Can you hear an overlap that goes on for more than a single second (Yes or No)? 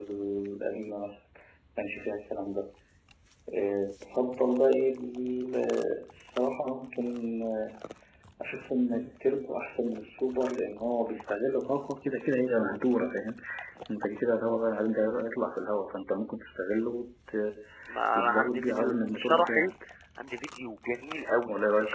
Yes